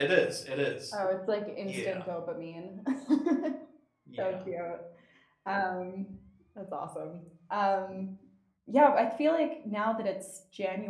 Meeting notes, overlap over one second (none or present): none